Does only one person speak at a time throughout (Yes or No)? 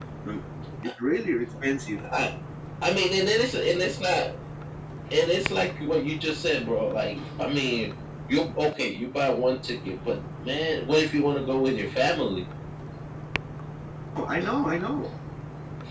Yes